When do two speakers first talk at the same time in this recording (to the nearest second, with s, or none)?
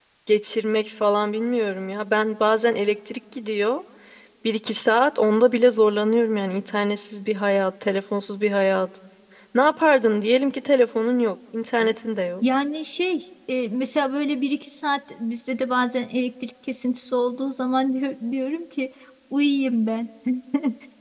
none